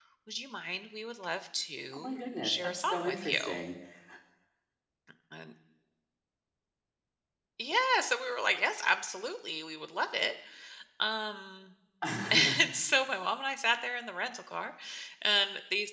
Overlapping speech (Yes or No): Yes